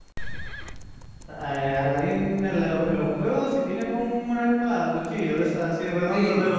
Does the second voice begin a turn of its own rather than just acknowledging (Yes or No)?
Yes